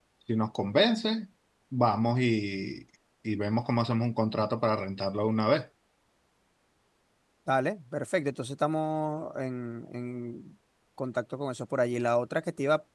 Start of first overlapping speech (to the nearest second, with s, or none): none